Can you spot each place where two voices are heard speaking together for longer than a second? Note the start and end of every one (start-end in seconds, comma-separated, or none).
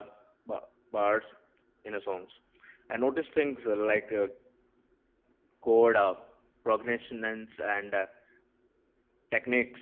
none